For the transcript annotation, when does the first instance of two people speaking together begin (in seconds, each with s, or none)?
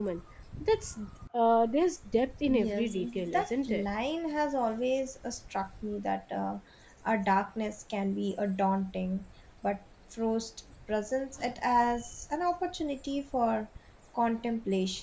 2.5 s